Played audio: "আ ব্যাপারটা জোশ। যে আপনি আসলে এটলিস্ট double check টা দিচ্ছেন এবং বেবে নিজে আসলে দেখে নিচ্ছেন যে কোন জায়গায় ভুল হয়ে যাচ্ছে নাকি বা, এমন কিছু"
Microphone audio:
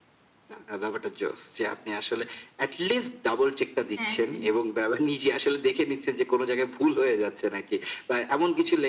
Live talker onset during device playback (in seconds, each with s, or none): 4.0 s